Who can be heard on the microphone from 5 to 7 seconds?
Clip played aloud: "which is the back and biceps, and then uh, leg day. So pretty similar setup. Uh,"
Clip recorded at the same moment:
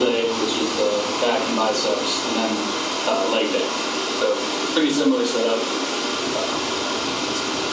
echo only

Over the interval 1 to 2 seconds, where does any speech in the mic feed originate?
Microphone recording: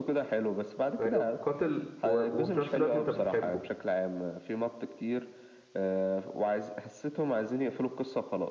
both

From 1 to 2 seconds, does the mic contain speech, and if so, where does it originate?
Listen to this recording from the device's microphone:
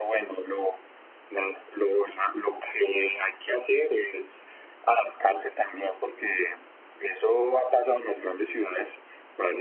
echo only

